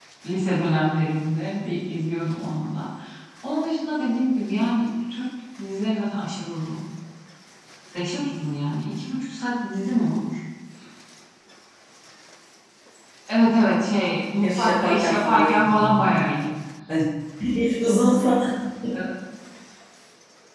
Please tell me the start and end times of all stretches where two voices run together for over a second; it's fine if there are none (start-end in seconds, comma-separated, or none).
14.4-16.1